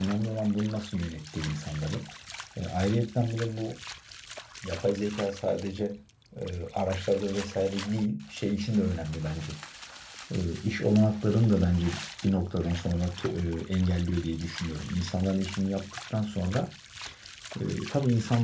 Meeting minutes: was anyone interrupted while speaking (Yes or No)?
No